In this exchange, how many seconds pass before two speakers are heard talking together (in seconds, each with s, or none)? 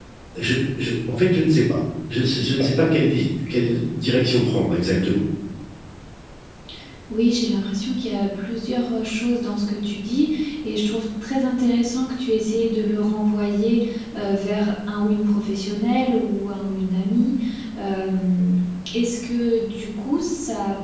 none